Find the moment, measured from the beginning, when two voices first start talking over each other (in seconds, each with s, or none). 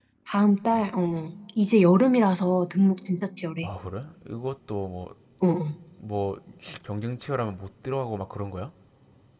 none